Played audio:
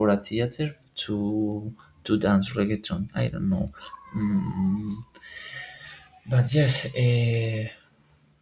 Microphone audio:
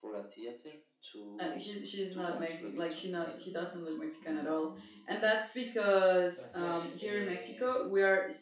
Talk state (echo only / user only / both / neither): both